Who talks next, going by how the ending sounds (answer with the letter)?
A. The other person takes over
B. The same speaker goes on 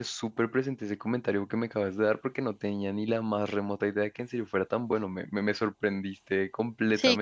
A